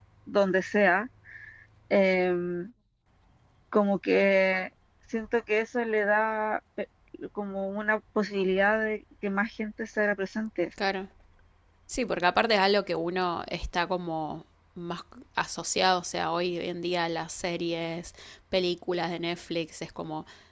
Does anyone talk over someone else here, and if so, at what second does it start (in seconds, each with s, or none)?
none